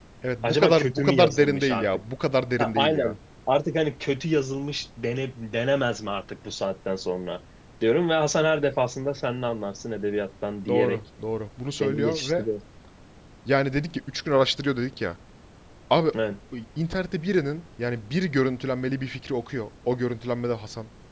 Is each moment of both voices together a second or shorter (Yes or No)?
No